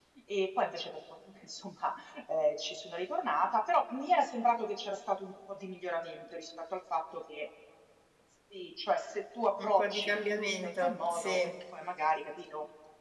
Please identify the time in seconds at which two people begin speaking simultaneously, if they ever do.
10 s

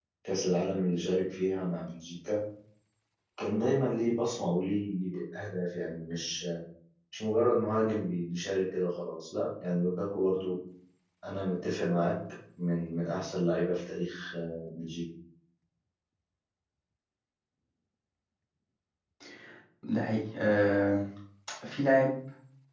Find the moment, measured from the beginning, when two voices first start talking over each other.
none

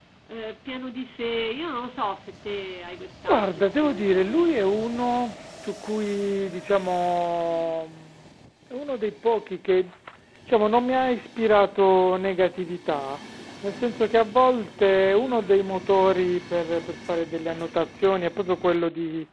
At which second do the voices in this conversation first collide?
3 s

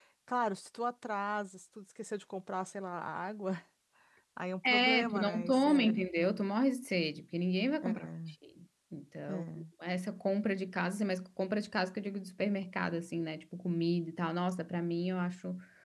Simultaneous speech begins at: 5 s

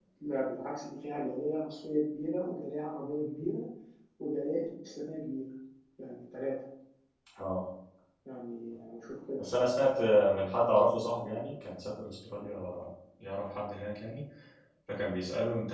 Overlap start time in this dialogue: none

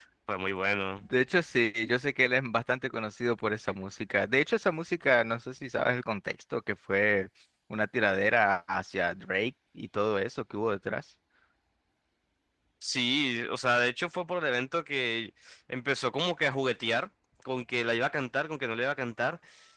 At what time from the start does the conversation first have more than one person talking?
none

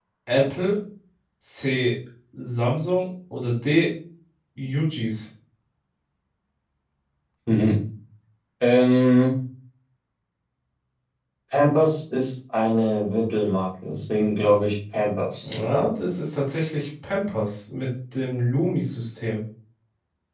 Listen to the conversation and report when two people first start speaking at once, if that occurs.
none

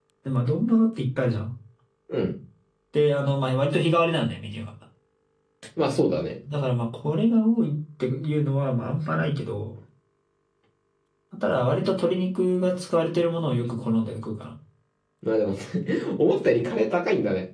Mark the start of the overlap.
none

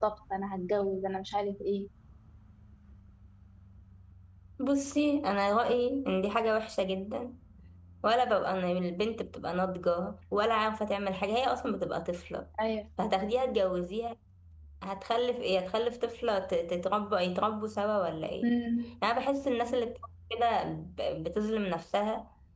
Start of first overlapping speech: none

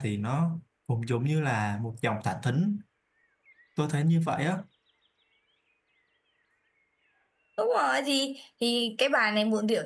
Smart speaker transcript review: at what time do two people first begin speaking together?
none

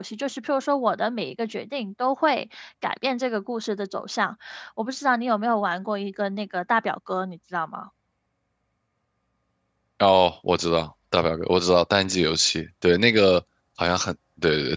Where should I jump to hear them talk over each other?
none

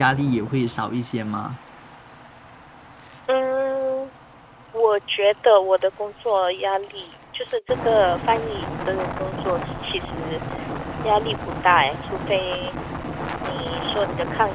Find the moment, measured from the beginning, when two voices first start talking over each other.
none

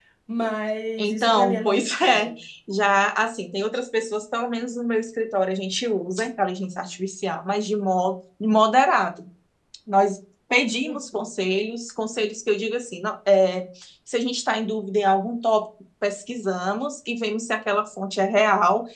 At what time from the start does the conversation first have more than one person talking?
1 s

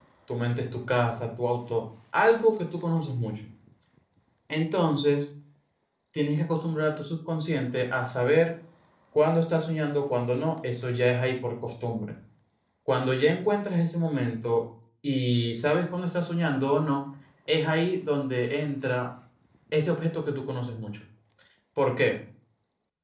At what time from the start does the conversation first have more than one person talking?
none

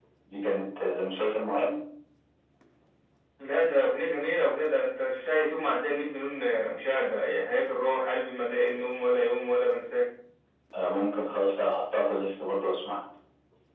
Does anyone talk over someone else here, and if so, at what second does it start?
none

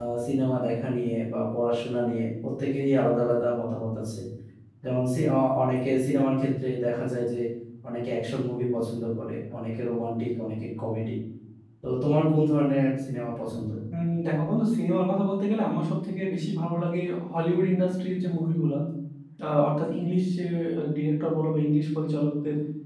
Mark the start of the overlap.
none

